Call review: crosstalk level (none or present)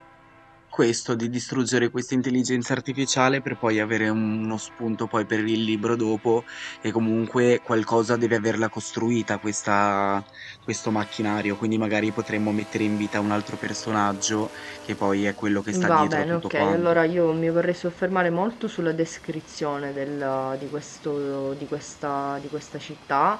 present